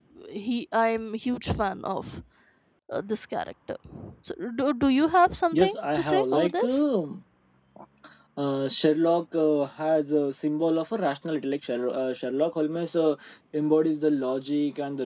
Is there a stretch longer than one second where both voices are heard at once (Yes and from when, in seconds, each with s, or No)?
Yes, from 5.5 s